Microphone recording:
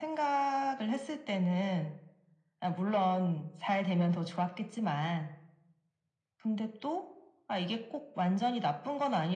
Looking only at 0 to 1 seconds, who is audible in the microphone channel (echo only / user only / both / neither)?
echo only